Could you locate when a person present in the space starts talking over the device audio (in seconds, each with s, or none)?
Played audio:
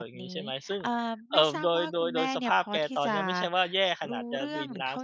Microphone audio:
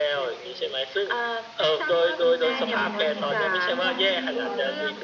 2.1 s